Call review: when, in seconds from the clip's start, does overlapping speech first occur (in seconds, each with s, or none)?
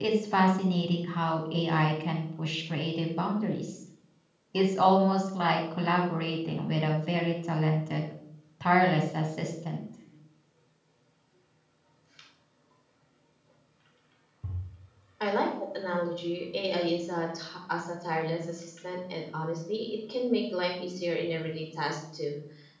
none